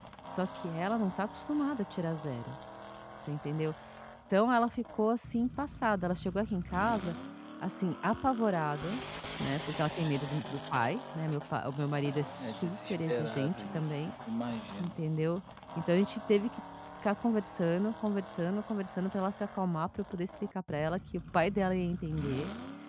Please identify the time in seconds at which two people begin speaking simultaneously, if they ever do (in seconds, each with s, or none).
12.4 s